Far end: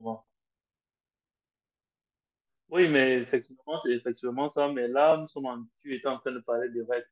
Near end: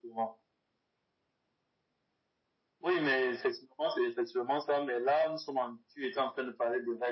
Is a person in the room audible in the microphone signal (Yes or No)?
No